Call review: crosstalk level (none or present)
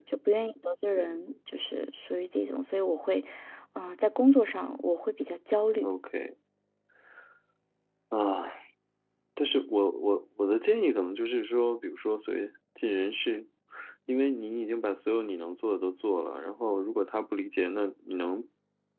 none